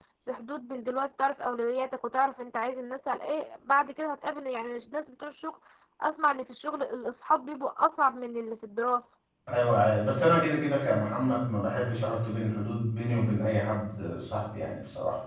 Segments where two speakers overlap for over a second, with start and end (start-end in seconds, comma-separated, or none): none